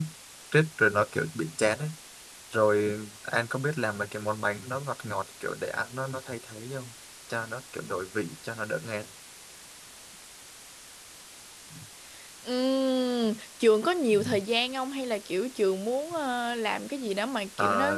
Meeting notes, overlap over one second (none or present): none